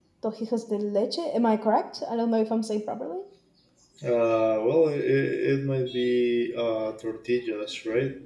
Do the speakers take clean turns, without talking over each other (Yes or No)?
Yes